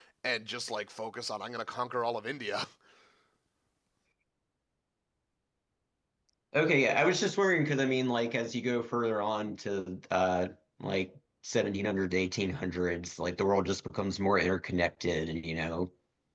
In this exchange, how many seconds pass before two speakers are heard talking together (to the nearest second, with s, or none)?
none